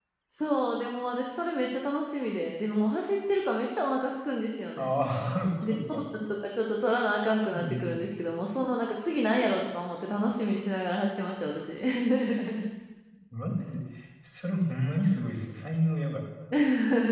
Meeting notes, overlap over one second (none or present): none